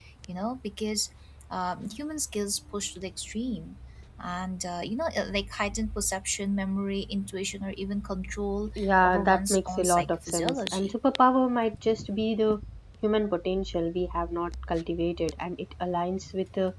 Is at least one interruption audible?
Yes, from 8.8 s

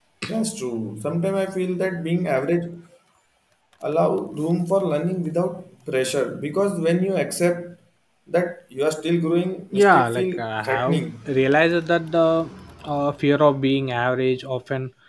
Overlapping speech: Yes, from 9.7 s

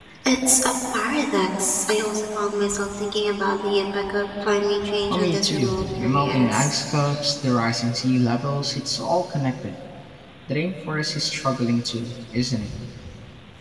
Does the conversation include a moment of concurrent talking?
Yes, from 5.1 s

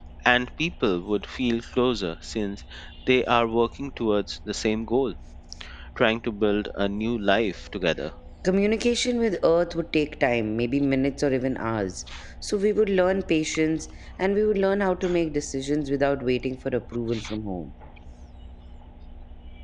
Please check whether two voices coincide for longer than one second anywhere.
No

